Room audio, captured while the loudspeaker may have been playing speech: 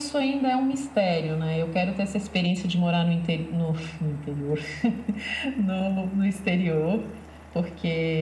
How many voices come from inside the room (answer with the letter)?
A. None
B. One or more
A